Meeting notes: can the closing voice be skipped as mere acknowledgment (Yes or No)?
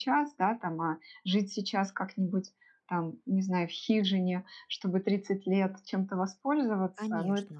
Yes